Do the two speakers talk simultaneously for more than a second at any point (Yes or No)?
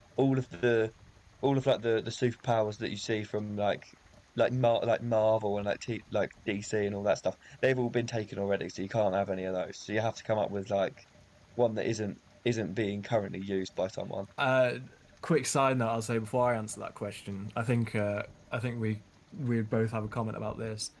No